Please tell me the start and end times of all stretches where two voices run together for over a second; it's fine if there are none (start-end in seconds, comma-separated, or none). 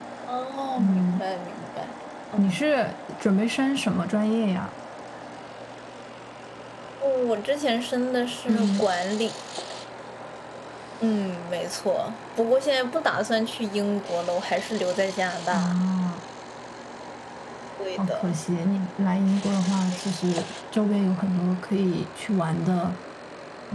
none